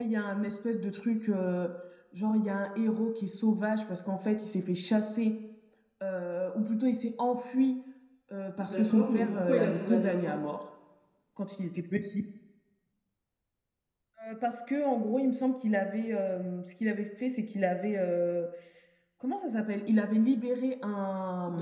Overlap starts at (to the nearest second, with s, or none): 9 s